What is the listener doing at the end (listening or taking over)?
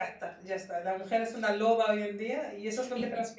listening